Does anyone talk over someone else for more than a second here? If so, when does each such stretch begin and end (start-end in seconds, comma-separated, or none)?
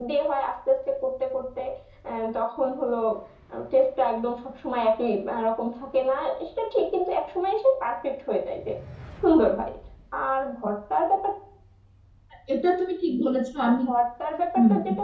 none